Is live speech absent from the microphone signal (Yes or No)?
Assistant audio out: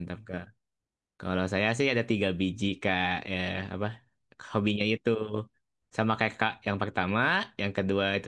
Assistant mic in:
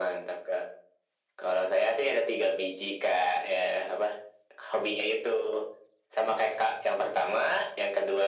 Yes